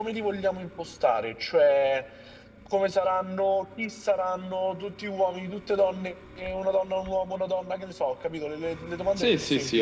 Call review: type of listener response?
taking over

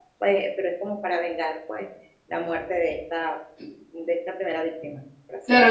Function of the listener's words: taking over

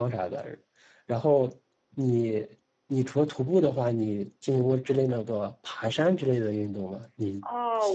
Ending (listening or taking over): taking over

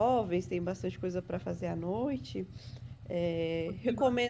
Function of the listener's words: taking over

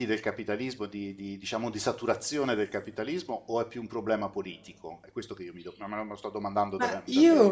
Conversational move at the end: taking over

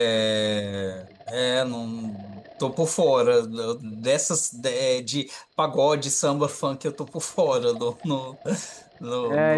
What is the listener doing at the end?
taking over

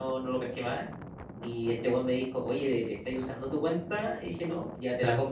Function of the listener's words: listening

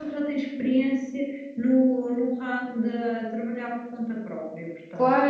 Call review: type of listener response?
taking over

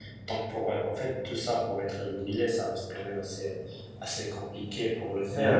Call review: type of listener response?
listening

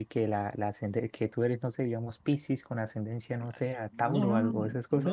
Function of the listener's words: taking over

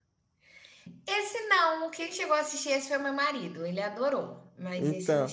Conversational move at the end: taking over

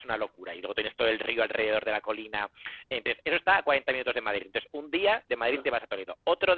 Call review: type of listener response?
listening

